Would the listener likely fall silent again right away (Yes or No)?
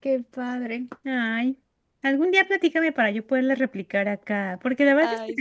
Yes